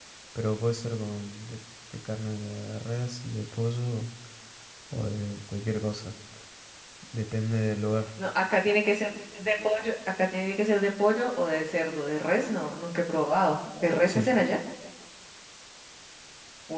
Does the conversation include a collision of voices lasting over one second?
No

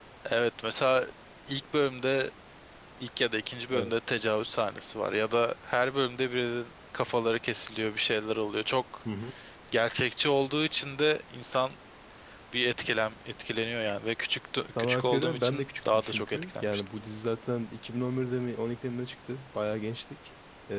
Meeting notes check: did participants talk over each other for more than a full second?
Yes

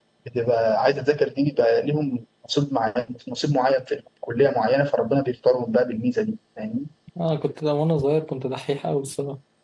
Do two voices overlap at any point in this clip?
No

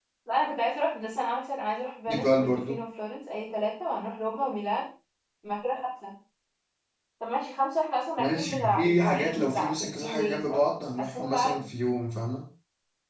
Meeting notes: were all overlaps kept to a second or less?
No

